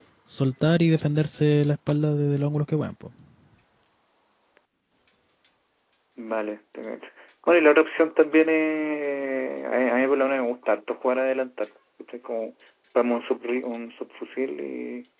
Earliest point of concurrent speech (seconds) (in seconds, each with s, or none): none